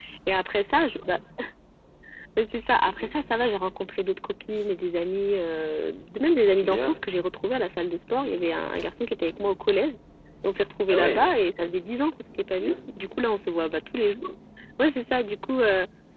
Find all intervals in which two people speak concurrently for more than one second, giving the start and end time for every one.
none

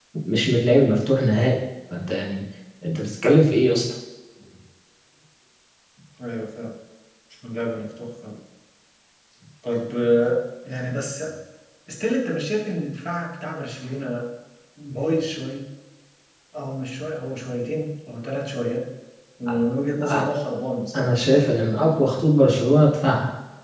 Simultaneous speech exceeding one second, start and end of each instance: none

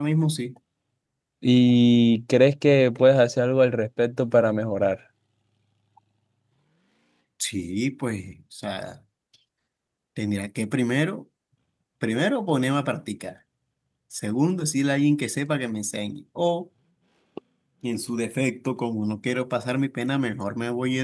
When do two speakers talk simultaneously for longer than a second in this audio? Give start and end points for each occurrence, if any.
none

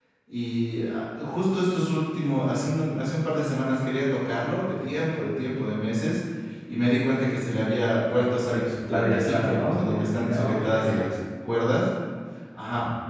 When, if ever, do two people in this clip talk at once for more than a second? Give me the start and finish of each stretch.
8.2-11.1

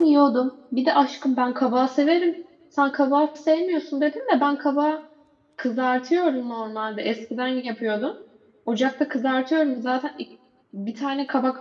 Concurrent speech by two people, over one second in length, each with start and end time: none

